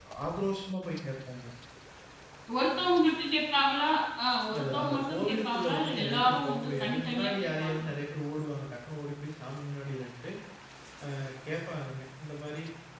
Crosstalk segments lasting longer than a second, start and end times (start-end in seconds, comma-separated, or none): 4.6-7.9